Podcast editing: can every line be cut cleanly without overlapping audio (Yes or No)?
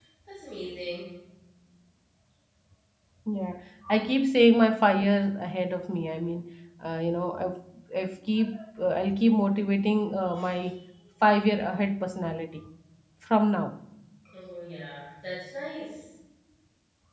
Yes